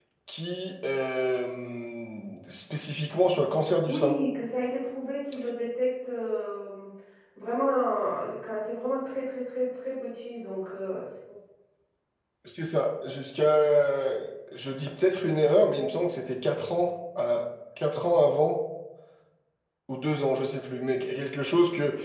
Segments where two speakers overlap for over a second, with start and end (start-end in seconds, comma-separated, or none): none